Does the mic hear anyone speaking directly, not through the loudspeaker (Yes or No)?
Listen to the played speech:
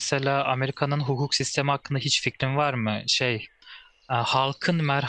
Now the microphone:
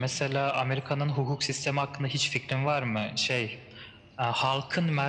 No